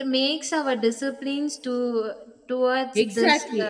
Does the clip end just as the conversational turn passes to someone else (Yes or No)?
Yes